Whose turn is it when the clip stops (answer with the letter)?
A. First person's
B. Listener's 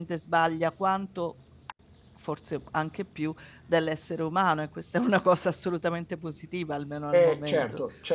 B